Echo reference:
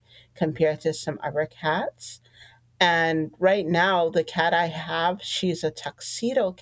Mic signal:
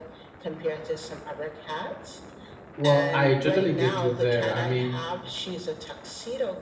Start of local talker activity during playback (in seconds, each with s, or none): 2.8 s